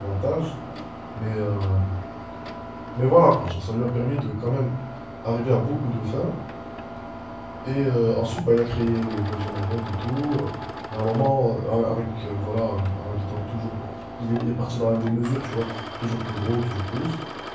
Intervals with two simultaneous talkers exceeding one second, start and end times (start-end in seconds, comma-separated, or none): none